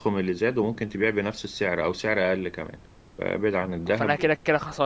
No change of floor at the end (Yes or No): No